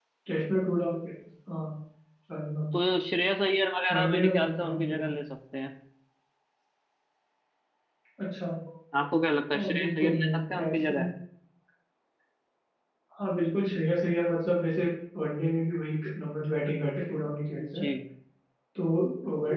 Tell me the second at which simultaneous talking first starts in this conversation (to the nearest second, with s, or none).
4 s